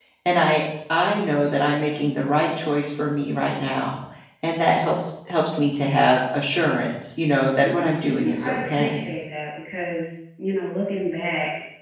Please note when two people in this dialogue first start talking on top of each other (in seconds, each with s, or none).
7.6 s